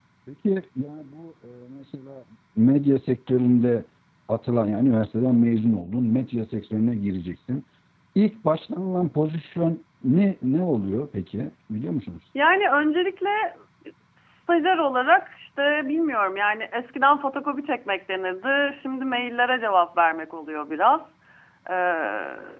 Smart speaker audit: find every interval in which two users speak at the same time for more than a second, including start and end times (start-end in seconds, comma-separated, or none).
none